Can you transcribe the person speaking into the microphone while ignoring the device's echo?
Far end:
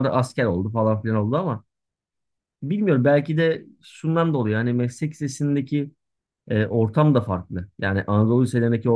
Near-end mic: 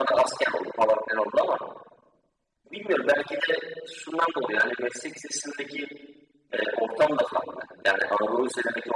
none

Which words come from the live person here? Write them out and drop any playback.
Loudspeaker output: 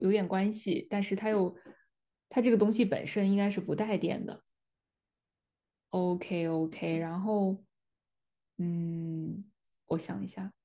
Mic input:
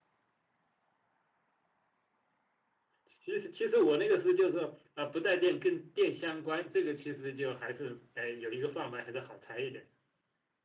其实其实我那个是就是说啊、不带电跟电相关，这个其实就还是哎有一个范围还是好猜一点的。

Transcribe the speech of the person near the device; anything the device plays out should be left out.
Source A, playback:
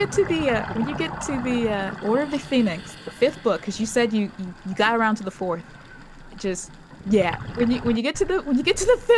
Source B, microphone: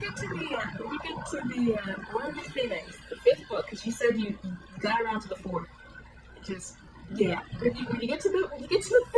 none

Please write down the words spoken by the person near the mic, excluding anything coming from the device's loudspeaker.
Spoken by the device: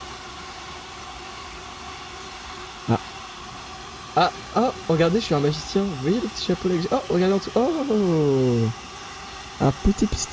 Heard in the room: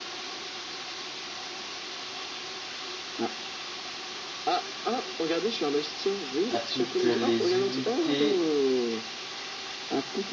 À toutes les unités,

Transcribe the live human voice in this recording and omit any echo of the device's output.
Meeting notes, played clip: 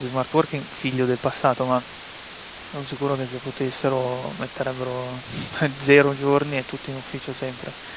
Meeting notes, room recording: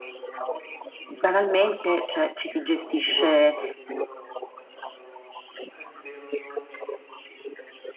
banalmente cioè, ci si gestisce

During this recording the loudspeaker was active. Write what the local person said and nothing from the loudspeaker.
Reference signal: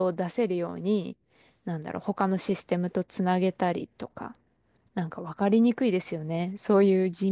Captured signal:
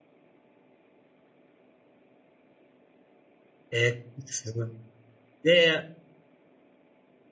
え、すごい。で、

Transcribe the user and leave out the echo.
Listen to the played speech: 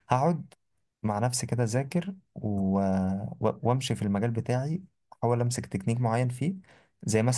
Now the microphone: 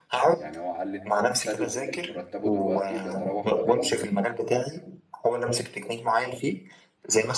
يعني هو قال لي ان هو مبتدئ مرتبه دلوقتي بيتراوح ما بين

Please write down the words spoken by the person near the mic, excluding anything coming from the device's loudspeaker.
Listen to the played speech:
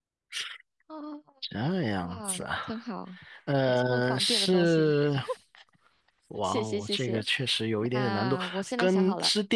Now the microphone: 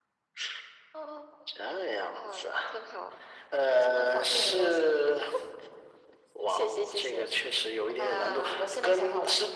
none

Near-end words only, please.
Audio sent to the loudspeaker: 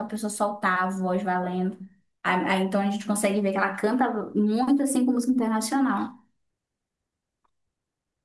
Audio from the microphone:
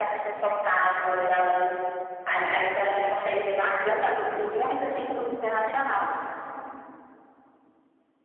none

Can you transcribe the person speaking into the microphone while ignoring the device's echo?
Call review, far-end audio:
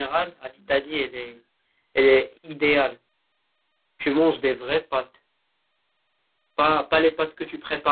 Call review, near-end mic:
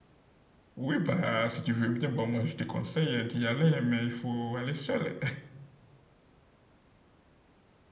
Oui, bah, si tu veux bien, bon, moi, je te conseille d'y aller, mais il faut aller seul.

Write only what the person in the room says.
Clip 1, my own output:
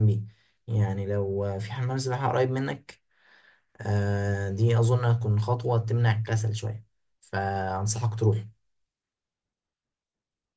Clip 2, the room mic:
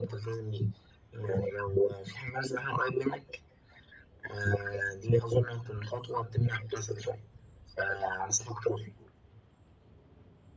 none

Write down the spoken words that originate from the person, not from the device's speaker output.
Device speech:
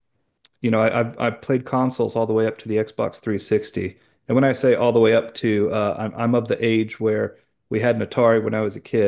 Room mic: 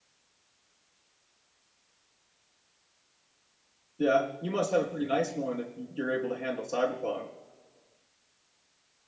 Yeah, you must have a pretty nice one if you're able to handle Cyberpunk.

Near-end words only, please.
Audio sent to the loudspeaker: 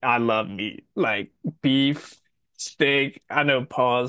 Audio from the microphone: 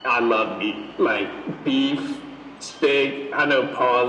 none

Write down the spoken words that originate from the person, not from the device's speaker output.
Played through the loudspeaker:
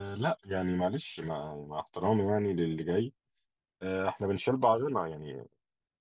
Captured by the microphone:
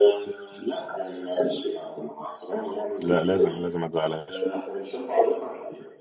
لا لازم لازم ما تزعلهاش

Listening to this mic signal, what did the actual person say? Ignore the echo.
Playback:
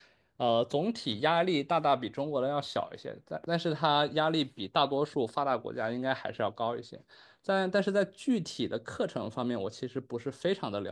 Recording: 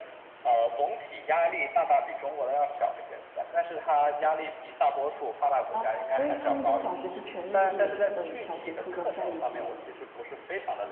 啊，所以他们的小学是全日制的，就是等于小学、初中在一起。

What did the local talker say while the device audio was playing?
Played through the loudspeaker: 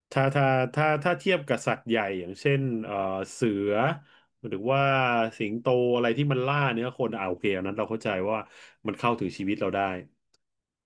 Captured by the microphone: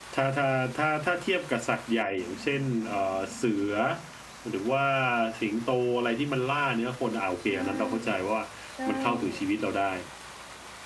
ใช่ใช่

